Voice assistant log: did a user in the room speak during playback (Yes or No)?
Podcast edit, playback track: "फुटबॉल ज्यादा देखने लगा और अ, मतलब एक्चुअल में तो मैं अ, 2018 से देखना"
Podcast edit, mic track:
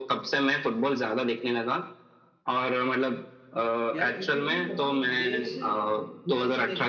Yes